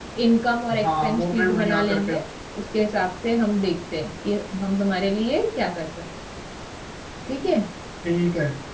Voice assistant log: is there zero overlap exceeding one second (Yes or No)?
No